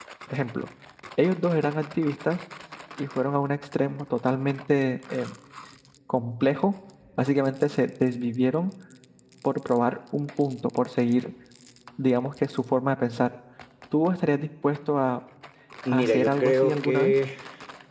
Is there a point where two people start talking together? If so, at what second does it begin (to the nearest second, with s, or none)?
16 s